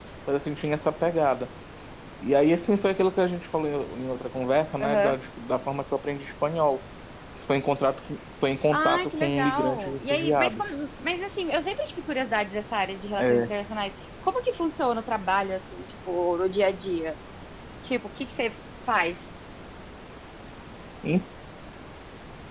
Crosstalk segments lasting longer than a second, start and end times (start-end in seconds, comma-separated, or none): 8.7-10.6